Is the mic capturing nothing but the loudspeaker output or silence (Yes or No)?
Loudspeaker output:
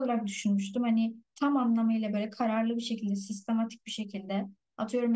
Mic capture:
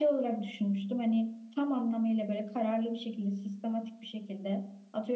Yes